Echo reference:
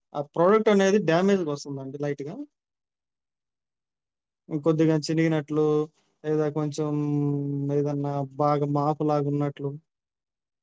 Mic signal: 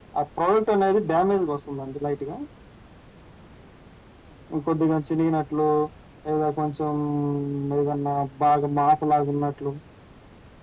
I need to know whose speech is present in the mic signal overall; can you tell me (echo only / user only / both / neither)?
echo only